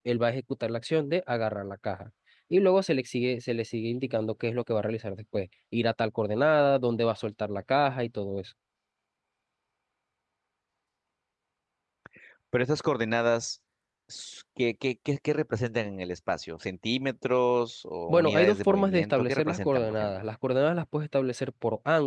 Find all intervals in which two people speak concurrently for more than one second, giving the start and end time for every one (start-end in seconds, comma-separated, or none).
18.1-20.2